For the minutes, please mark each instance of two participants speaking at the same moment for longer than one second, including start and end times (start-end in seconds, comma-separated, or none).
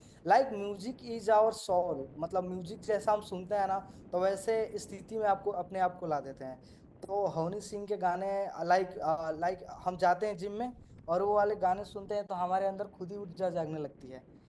none